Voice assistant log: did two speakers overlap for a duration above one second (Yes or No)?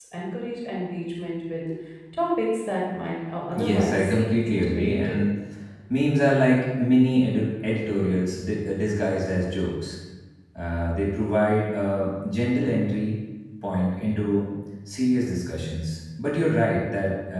Yes